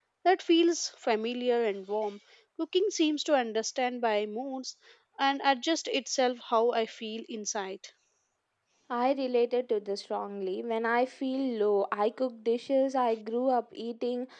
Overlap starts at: none

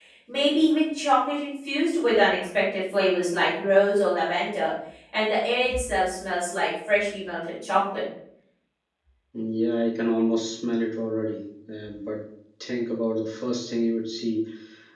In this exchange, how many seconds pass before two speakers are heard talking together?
none

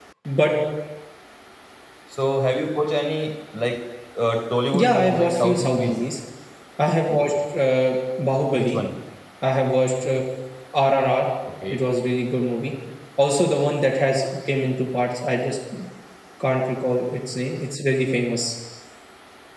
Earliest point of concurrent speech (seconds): 4.7 s

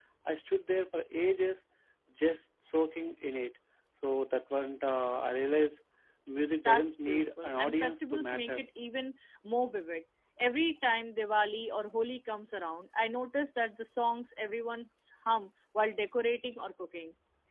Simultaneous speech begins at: 6.7 s

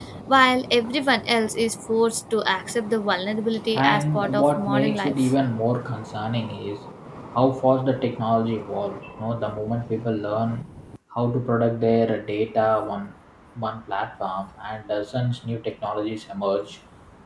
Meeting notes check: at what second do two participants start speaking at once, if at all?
3.8 s

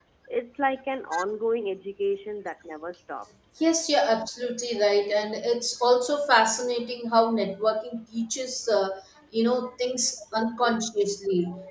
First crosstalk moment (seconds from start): none

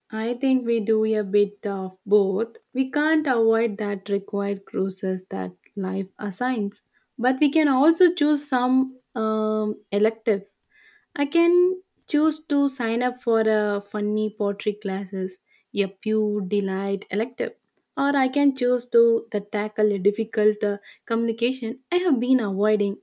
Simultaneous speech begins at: none

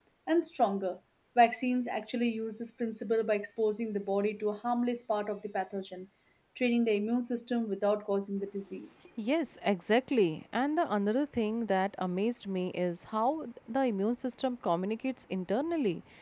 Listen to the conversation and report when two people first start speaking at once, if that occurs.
none

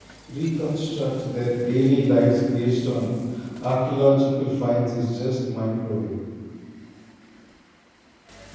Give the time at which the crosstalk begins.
none

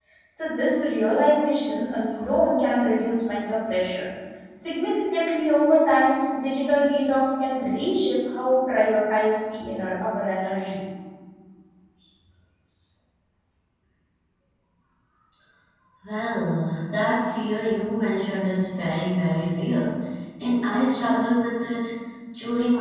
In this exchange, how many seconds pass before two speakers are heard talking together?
none

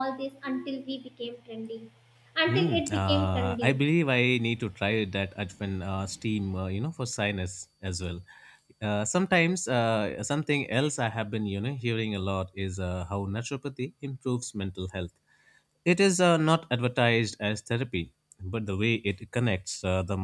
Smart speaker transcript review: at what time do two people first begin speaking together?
2.5 s

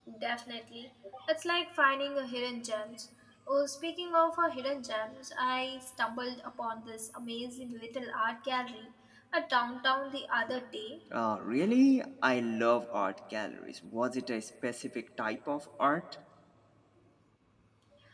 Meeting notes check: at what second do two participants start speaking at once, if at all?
none

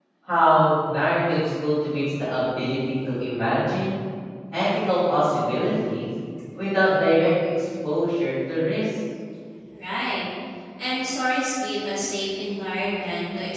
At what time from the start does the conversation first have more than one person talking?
none

